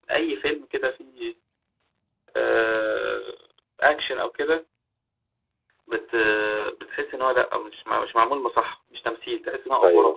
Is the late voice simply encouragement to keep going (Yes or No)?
No